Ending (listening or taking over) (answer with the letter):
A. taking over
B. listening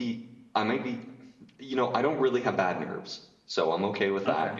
B